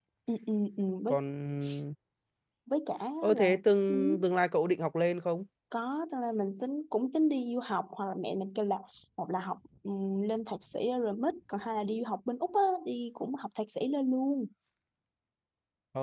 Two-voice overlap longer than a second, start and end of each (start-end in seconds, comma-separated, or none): none